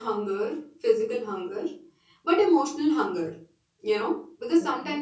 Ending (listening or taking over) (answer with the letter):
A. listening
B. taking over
A